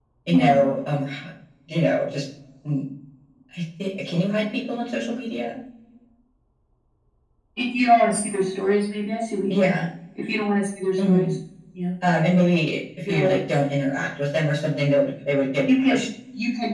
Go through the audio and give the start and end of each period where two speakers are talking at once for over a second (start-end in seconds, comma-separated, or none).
none